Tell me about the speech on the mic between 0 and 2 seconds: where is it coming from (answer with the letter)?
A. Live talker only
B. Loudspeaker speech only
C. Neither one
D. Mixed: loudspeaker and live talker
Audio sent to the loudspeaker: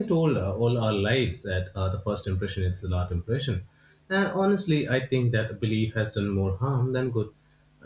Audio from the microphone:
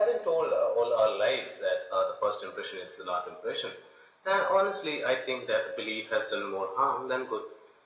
B